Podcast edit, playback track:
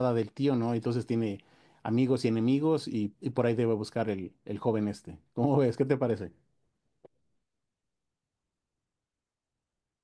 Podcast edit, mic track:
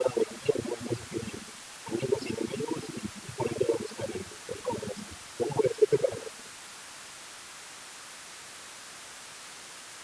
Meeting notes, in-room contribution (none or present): none